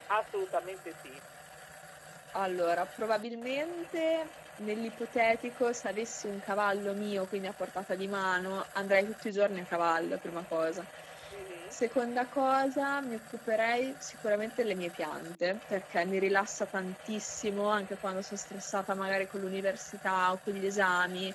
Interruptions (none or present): none